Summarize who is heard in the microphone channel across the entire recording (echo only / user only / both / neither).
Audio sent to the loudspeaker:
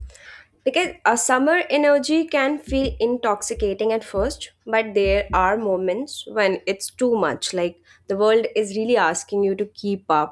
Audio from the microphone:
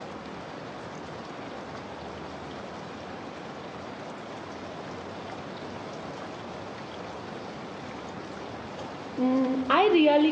user only